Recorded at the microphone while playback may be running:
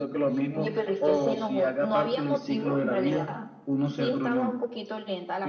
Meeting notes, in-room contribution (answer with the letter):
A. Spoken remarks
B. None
B